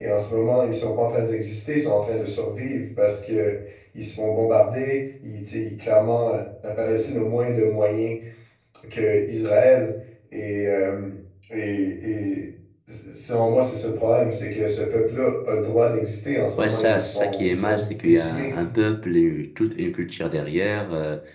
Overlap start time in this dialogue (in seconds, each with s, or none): 16.6 s